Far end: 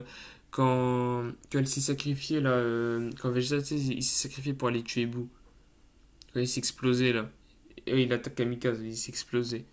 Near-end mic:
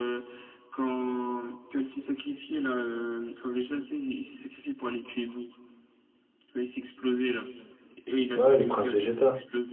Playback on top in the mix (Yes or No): No